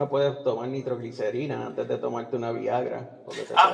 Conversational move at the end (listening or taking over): taking over